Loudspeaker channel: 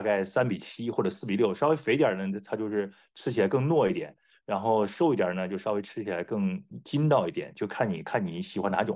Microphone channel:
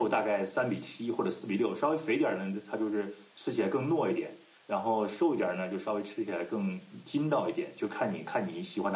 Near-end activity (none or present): none